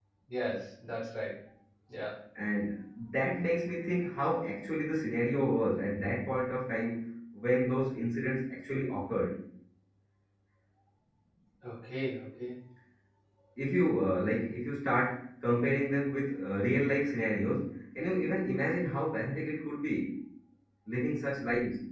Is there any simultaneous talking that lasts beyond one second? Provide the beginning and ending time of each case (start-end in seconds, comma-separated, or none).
none